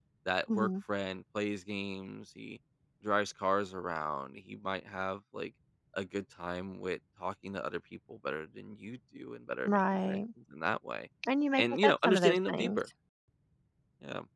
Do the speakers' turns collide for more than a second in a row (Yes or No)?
Yes